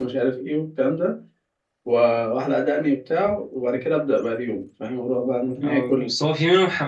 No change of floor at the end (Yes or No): No